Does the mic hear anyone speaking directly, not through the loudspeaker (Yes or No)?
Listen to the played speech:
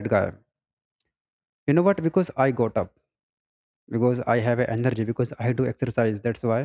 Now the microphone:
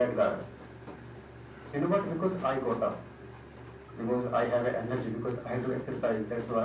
No